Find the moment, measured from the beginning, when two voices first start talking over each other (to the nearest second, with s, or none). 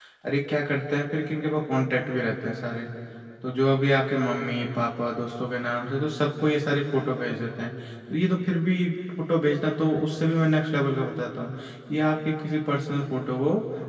none